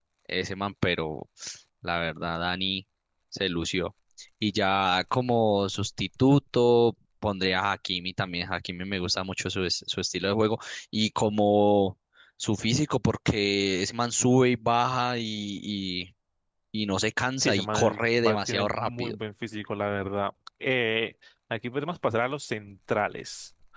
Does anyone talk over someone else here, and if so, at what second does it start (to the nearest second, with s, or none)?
17 s